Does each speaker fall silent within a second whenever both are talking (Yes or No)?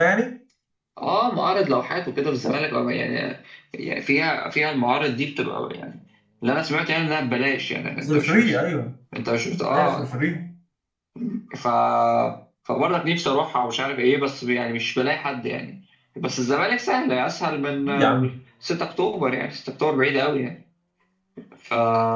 Yes